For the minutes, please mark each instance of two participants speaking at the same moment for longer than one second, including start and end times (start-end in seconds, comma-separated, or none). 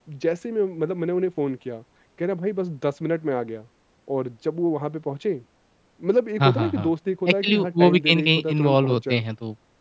7.3-9.2